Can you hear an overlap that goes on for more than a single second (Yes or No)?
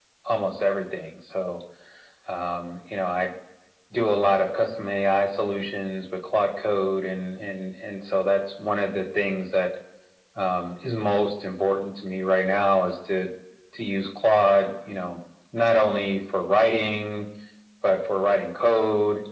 No